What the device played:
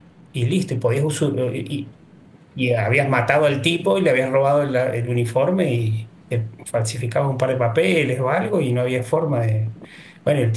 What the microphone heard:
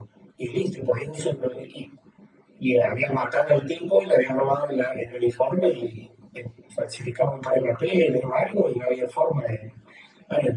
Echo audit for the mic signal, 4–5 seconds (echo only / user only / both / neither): echo only